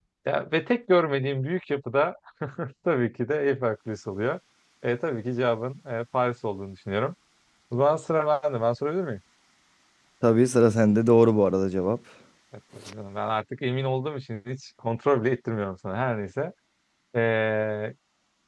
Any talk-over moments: No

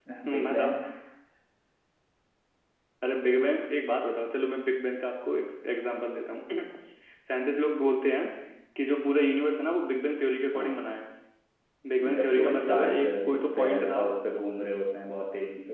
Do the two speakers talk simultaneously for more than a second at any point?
Yes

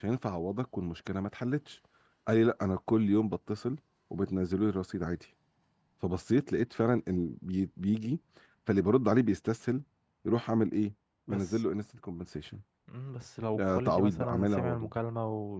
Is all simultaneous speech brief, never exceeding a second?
No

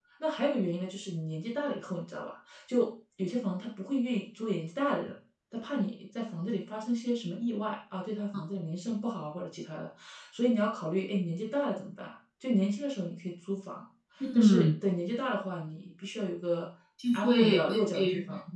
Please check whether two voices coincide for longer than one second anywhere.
Yes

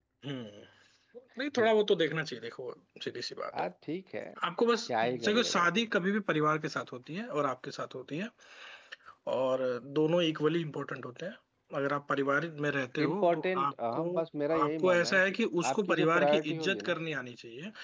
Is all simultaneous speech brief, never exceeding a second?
No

